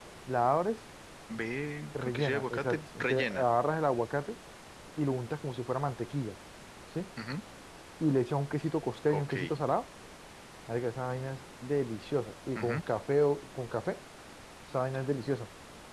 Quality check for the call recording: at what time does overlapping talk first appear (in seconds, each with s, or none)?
2.0 s